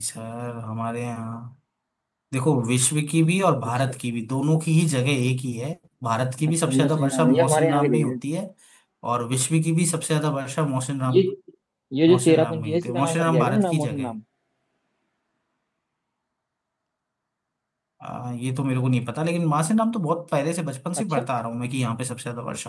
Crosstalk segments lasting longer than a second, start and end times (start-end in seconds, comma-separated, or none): 6.5-8.2, 12.1-14.2